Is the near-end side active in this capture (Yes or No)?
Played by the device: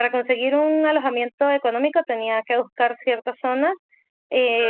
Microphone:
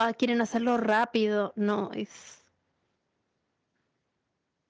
Yes